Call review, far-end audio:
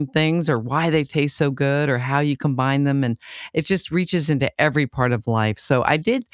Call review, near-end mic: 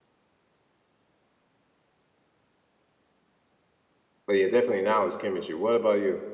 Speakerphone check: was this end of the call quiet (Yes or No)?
No